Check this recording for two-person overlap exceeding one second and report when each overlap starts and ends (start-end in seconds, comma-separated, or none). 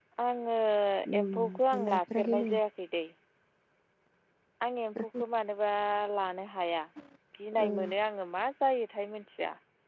1.2-2.5